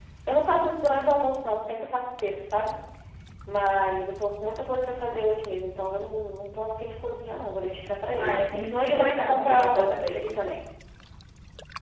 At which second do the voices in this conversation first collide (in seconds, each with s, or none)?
8.2 s